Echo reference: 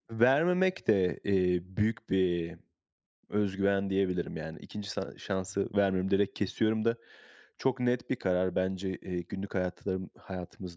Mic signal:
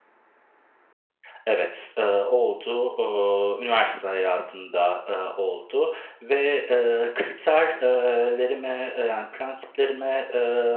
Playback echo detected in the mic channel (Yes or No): No